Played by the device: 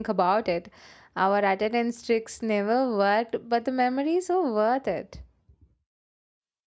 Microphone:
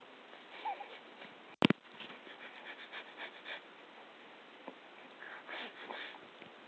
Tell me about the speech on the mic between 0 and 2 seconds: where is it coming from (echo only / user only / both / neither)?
neither